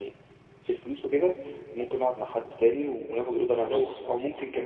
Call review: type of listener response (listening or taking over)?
listening